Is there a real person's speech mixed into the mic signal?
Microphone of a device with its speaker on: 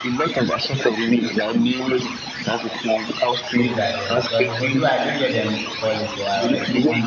Yes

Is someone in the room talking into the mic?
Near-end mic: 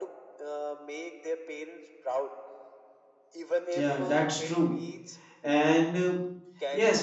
Yes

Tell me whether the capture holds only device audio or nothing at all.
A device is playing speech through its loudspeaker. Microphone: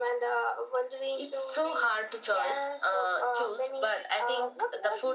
Yes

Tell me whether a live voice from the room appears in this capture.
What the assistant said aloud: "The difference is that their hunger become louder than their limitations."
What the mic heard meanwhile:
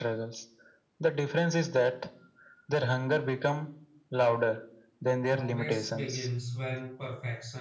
Yes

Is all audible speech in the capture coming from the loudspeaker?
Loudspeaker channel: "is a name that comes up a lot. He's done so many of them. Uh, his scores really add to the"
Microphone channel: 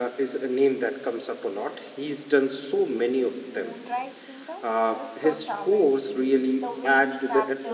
No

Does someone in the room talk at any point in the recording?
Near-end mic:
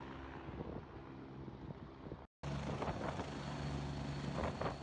No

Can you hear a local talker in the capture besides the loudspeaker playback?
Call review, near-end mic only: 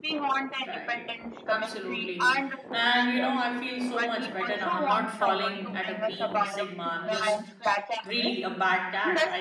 Yes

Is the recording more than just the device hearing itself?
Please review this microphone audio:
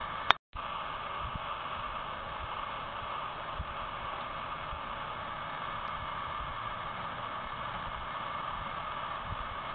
No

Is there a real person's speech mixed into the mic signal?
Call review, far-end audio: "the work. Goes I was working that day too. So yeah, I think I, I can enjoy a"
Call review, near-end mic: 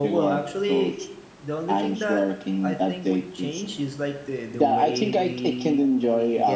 Yes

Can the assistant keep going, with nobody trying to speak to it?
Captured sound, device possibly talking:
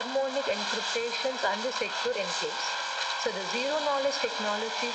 Yes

